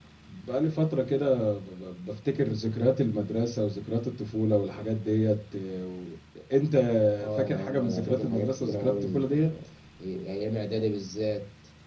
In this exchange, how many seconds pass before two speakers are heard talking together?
7.3 s

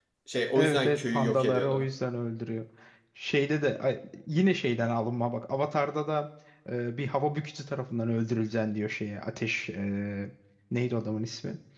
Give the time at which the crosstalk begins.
0.6 s

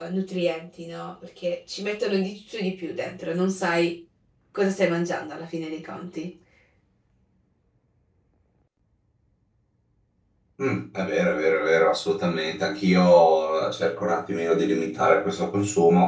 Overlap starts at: none

